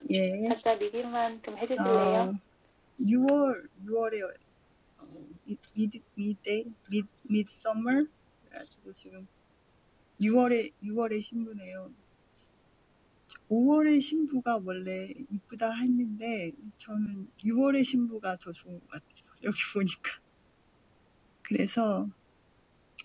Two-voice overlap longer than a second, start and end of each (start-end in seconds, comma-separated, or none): none